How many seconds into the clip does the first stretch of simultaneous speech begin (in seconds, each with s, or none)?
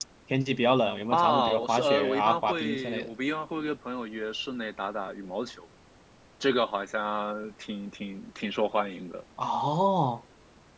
1.1 s